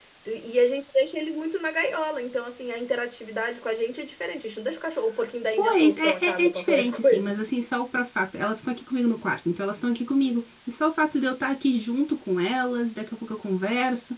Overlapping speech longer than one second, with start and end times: 5.6-7.4

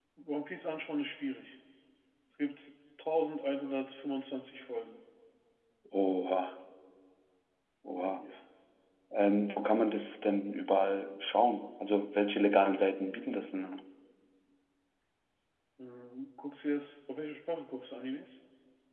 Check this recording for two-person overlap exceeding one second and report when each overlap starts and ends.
none

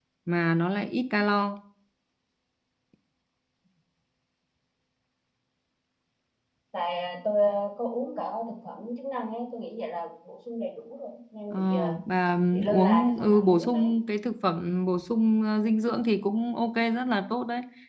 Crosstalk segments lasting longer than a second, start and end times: 12.5-13.9

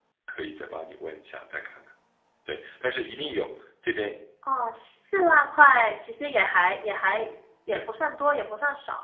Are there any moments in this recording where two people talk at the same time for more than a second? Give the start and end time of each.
none

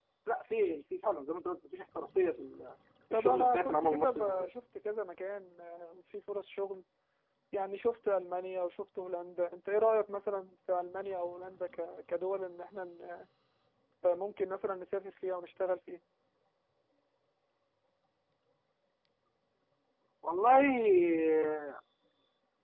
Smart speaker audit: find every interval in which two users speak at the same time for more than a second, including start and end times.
3.1-4.5

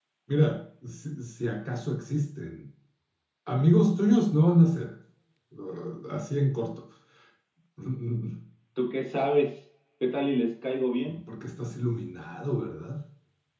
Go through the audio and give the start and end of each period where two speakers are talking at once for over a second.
none

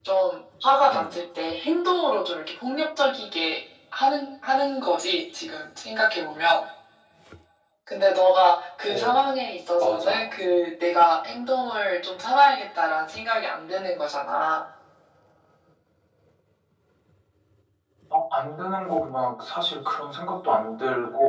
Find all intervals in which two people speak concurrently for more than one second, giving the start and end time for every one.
none

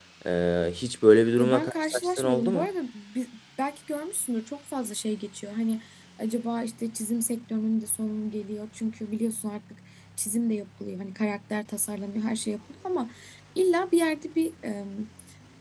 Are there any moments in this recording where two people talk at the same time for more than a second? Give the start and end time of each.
1.4-2.7

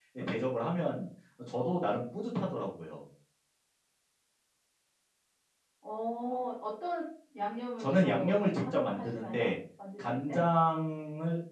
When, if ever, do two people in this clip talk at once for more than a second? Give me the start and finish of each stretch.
7.8-9.5

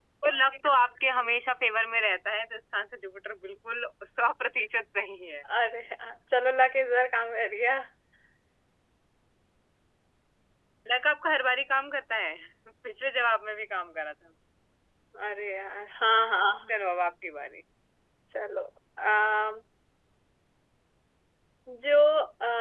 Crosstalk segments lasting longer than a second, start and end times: none

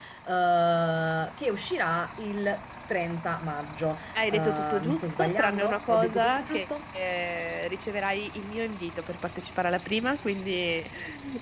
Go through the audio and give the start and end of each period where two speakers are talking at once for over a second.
4.2-6.7

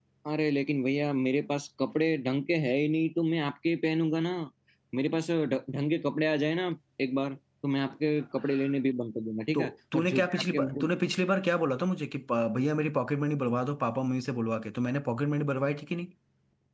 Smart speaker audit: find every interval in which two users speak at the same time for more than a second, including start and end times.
9.5-10.9

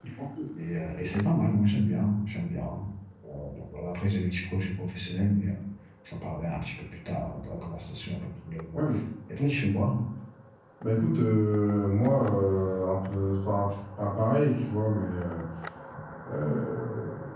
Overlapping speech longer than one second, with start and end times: none

